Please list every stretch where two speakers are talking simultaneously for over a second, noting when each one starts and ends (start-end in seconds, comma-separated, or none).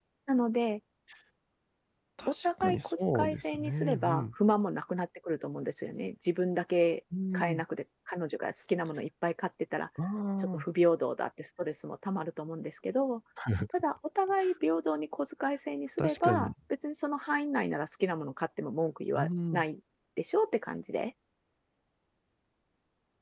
2.3-4.3